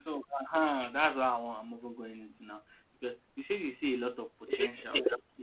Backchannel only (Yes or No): Yes